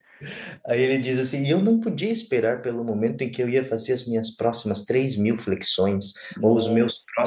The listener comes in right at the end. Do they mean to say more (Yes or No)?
No